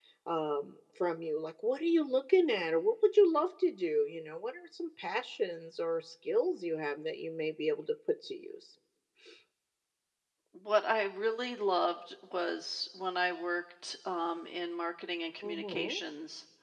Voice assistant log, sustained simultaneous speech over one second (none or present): none